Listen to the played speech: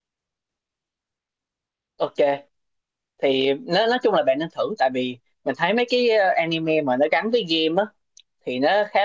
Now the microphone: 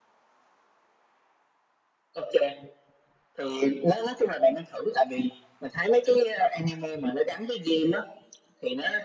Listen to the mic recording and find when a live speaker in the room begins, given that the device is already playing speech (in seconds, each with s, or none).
none